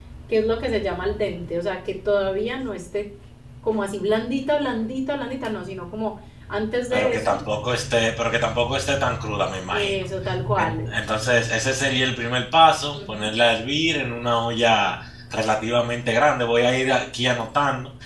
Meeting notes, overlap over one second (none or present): none